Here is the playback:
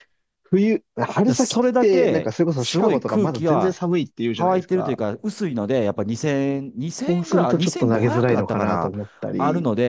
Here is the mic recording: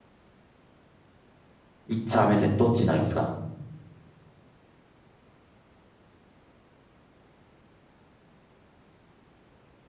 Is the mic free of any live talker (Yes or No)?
No